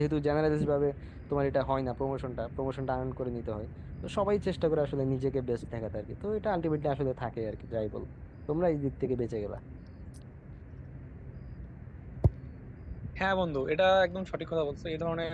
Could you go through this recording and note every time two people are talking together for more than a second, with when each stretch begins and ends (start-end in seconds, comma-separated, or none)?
none